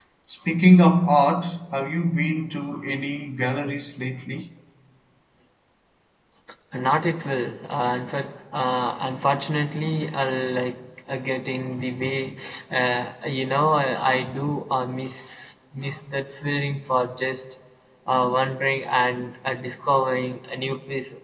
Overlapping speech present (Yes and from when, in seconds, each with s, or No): No